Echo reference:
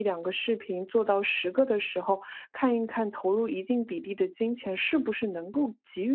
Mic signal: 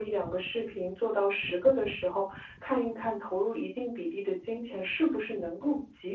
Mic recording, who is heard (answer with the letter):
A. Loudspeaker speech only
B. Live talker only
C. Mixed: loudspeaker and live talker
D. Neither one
A